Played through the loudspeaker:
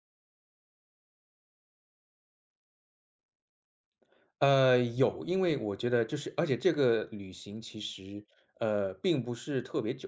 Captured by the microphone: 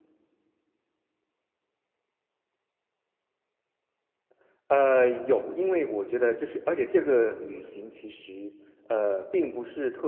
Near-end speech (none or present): none